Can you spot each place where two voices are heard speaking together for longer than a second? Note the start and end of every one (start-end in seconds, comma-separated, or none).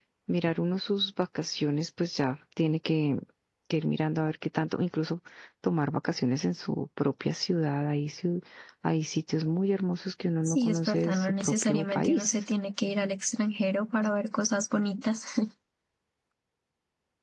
10.4-12.3